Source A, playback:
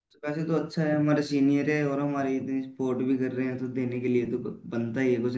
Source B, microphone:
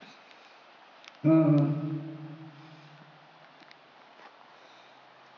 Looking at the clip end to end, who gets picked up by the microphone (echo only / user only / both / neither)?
user only